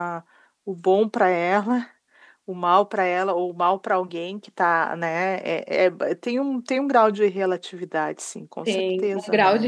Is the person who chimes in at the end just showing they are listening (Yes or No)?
No